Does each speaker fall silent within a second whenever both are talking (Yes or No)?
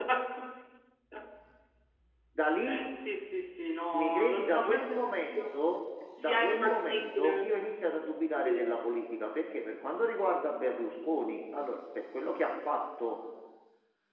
No